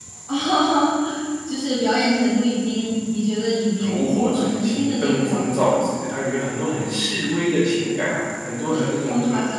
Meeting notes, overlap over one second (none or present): present